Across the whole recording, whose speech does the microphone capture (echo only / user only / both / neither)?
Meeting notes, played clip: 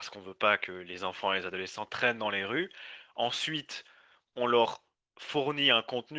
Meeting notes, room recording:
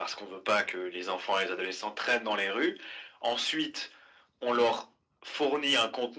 echo only